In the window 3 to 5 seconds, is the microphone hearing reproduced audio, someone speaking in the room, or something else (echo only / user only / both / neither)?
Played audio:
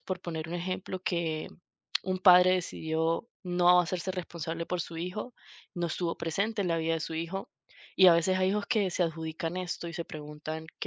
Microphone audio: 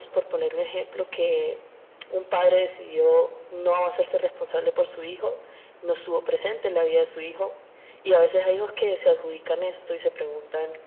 echo only